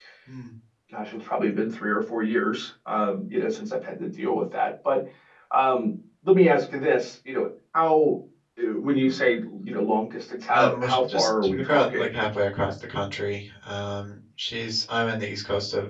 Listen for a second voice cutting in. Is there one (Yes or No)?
Yes